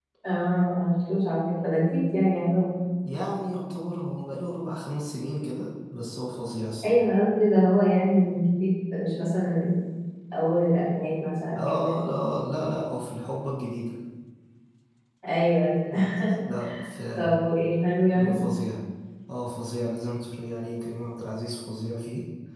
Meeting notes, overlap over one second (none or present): none